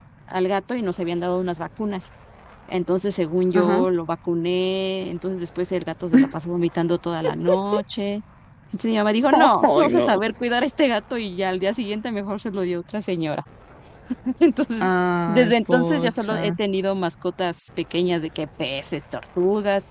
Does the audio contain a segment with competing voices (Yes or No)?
Yes